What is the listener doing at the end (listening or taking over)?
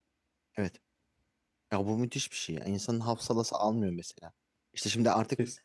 listening